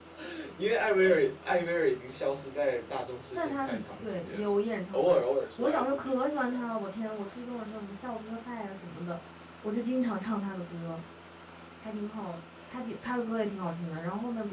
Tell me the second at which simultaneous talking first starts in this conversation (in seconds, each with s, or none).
3.4 s